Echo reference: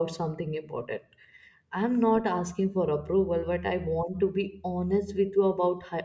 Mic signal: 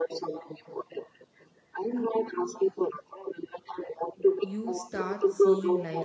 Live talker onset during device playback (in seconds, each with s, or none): 4.4 s